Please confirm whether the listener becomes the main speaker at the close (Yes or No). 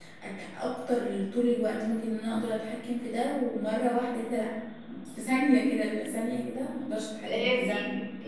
Yes